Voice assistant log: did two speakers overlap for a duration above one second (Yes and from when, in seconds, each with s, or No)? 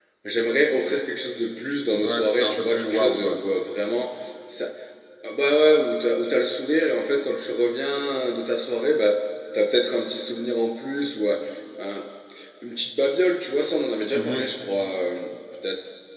Yes, from 2.0 s